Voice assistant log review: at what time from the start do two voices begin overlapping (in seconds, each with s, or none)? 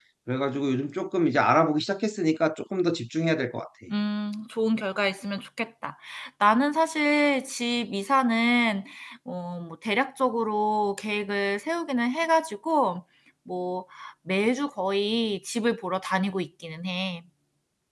none